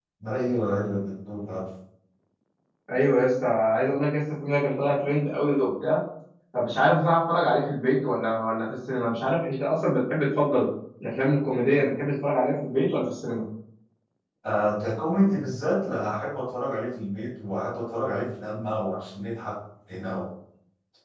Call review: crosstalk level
none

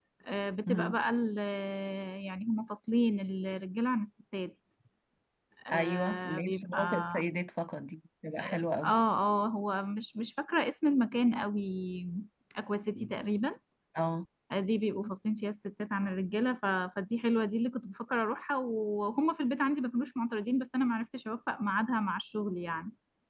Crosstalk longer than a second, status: present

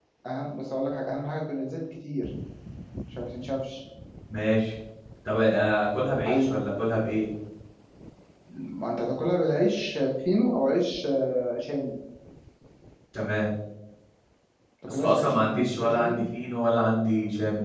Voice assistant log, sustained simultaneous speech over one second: present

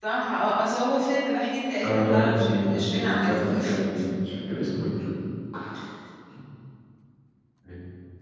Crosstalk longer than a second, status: present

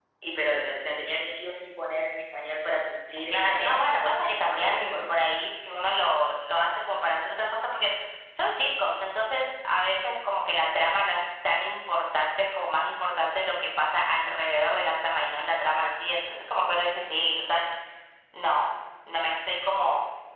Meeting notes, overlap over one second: present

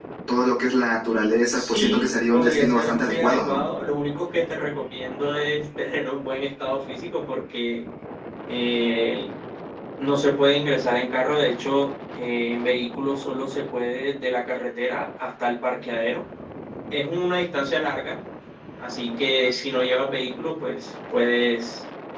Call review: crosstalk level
present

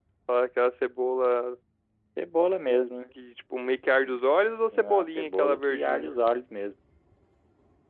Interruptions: present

